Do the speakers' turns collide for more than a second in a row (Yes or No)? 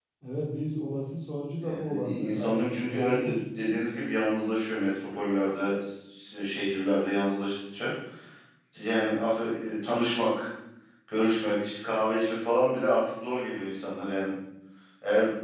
Yes